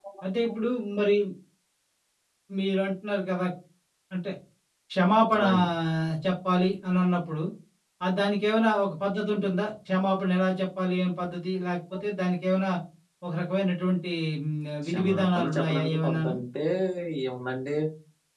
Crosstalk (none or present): present